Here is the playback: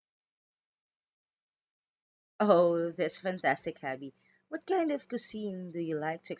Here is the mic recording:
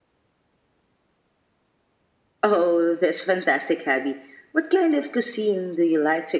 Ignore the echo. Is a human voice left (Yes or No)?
No